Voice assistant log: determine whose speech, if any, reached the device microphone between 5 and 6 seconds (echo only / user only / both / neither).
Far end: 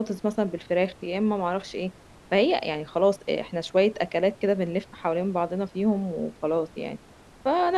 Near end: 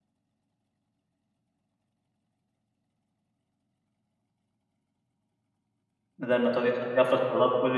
neither